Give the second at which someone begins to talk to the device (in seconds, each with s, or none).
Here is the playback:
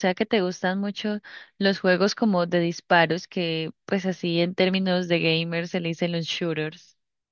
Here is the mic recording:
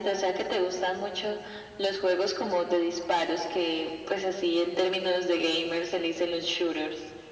none